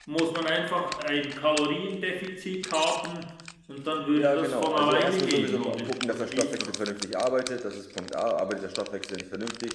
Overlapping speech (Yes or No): Yes